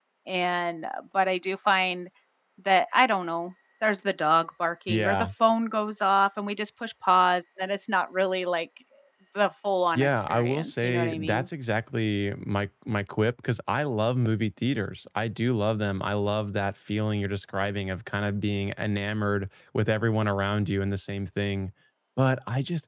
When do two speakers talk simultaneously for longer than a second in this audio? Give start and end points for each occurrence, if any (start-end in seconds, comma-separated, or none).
9.9-11.5